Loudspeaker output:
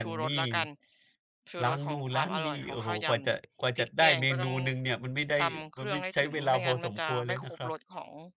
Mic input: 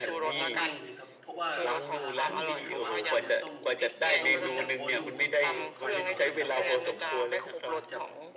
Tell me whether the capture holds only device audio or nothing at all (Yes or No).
No